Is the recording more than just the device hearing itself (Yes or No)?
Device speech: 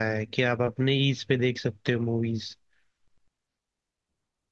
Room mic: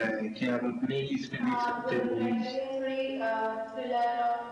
Yes